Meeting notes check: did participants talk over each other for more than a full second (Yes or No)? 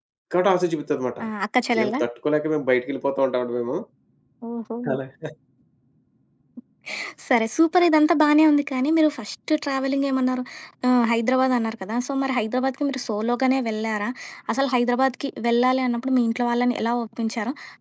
No